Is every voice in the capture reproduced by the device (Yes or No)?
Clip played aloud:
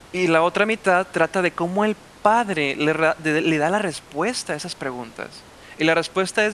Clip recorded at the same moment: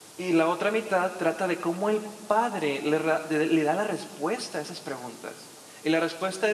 Yes